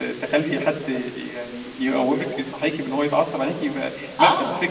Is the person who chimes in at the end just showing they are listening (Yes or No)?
No